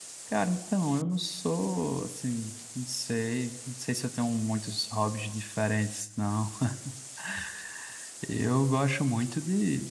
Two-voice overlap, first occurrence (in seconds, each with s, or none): none